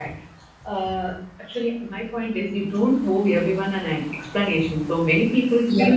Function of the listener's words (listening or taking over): listening